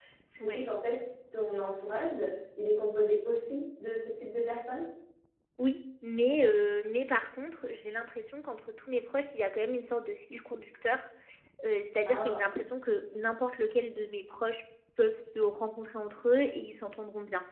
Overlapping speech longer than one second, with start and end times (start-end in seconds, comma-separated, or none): none